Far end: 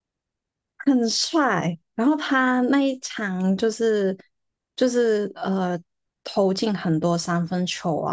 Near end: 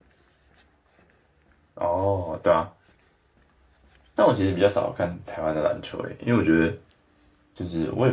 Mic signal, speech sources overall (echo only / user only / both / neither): user only